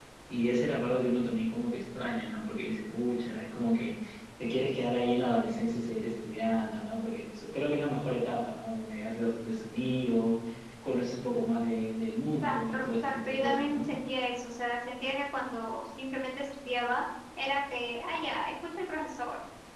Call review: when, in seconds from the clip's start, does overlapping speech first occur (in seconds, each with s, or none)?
12.4 s